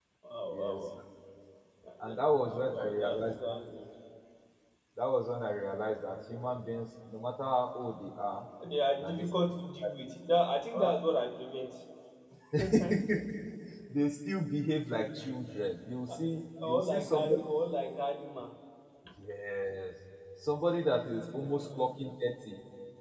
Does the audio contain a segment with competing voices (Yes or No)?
Yes